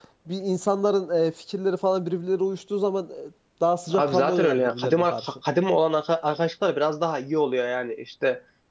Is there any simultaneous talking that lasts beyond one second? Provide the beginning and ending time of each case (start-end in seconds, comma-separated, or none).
3.9-5.3